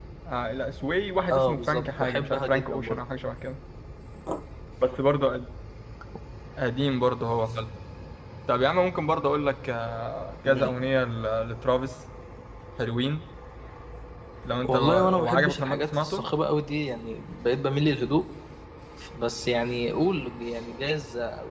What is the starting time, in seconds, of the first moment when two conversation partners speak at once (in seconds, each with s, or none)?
1.3 s